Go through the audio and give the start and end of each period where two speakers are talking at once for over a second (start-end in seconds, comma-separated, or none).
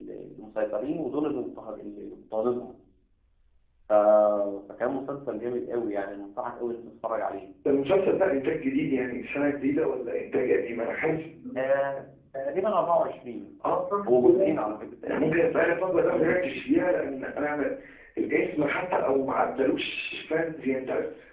none